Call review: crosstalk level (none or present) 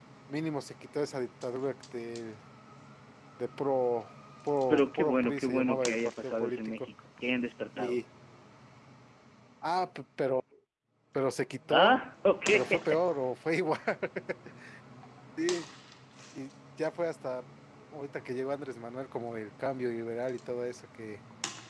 present